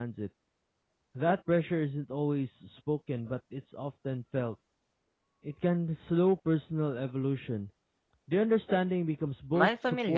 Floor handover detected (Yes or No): Yes